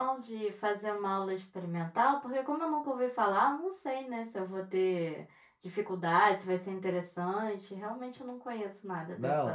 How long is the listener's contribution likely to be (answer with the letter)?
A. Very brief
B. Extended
B